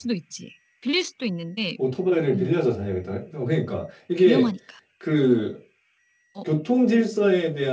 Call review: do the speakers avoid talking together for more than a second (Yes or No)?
Yes